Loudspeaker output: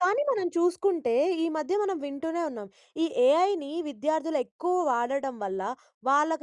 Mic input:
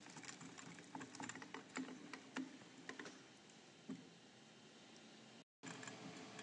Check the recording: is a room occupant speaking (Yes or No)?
No